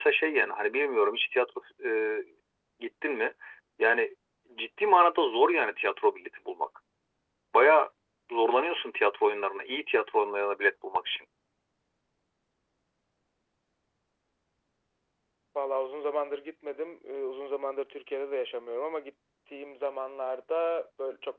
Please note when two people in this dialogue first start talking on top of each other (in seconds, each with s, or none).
none